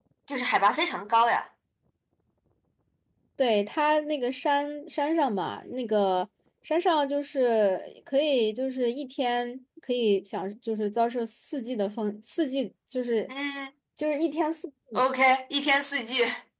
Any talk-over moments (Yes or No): No